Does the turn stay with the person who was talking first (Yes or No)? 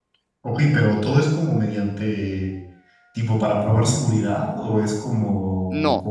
No